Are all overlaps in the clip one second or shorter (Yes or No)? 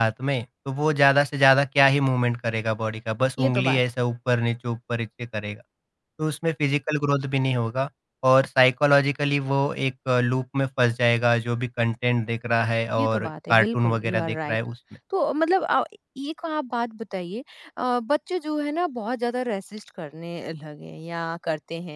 No